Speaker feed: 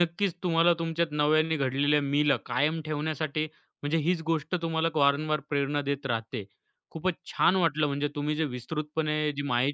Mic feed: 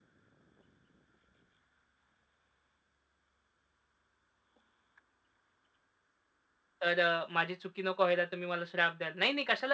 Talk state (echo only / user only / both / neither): user only